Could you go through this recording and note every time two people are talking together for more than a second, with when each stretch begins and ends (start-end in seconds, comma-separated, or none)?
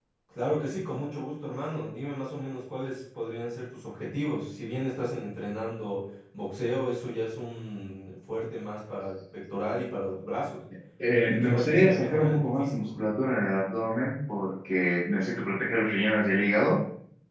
11.2-12.9